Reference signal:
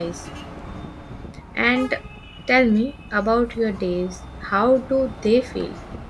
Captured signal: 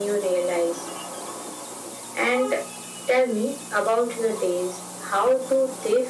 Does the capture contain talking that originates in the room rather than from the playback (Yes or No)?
No